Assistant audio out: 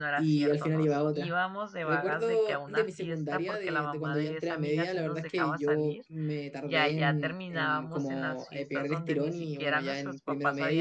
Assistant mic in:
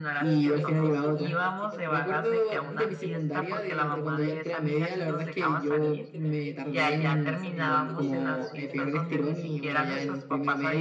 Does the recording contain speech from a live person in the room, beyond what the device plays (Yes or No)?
Yes